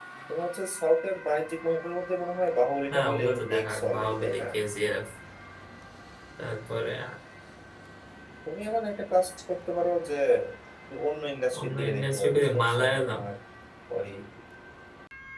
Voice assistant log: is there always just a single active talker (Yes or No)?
No